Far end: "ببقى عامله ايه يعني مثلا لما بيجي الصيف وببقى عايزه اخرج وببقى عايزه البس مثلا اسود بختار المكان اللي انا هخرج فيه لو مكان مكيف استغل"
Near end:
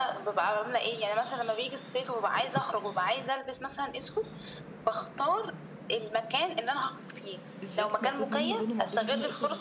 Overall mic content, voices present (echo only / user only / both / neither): both